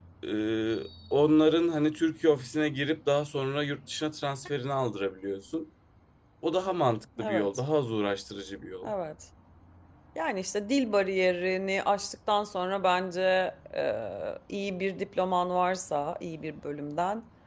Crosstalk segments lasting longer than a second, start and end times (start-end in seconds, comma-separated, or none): none